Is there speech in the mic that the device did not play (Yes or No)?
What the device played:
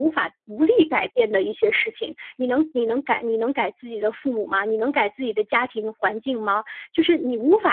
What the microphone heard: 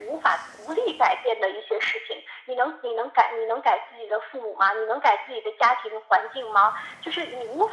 No